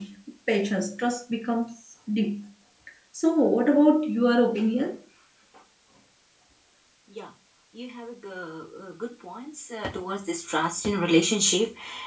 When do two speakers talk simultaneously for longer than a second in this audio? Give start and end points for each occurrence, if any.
none

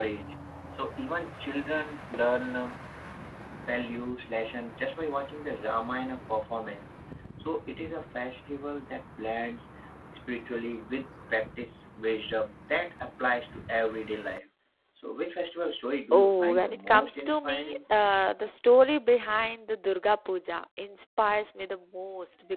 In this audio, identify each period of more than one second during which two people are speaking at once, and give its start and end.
16.1-17.8

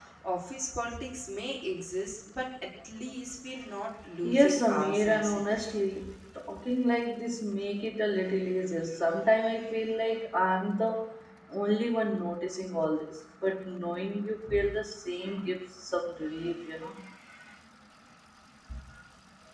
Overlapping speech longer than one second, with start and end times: 4.2-5.7

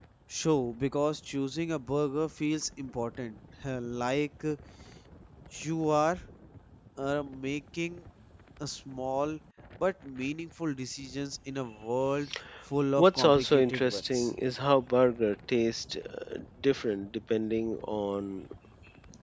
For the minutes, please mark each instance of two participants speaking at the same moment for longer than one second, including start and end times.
13.0-14.3

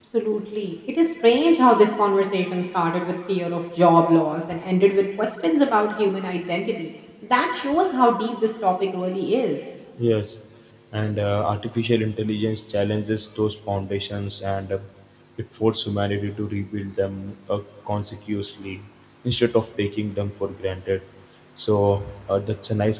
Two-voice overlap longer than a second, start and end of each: none

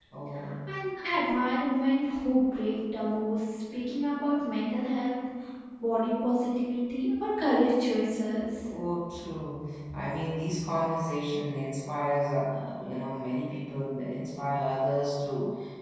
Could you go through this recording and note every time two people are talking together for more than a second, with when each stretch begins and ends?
none

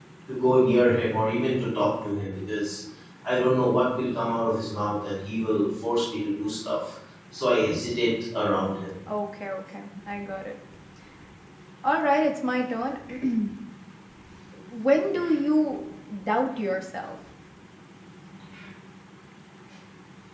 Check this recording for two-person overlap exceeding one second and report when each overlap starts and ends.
none

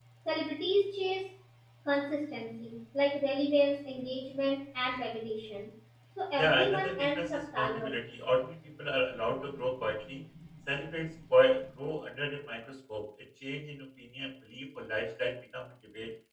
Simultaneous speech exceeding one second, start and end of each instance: 6.4-8.0

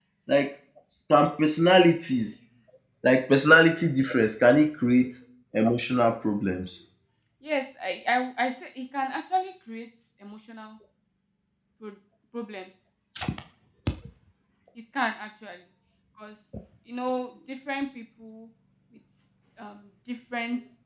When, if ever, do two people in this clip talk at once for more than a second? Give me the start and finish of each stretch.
none

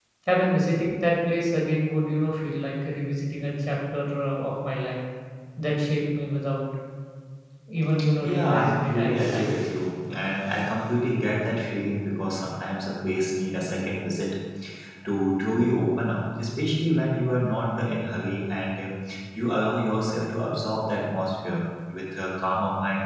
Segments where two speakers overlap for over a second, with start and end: 8.2-9.6

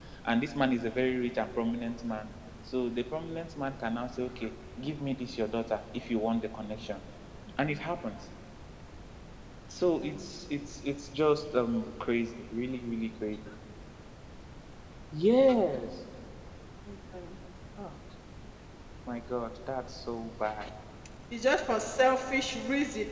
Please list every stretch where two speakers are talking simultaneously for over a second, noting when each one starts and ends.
none

